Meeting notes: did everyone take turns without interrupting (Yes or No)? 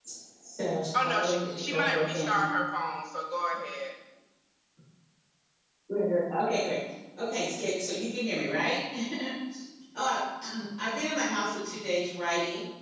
No